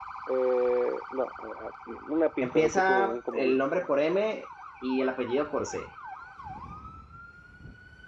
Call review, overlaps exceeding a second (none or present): present